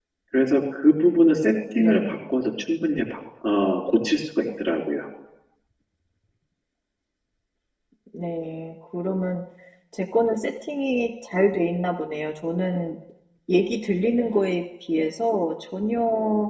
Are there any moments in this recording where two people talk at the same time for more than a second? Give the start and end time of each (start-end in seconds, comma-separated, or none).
none